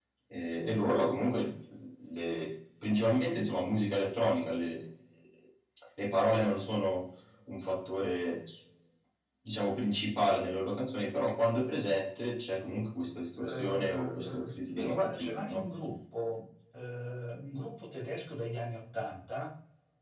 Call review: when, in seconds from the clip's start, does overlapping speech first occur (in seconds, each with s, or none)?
13.4 s